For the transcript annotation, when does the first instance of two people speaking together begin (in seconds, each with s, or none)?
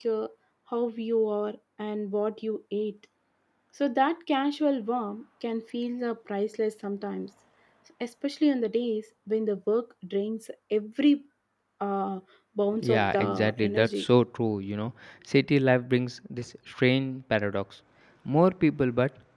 12.8 s